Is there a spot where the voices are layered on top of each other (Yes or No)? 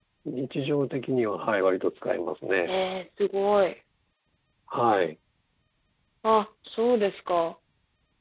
No